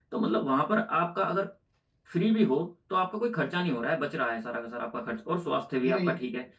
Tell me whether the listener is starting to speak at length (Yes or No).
No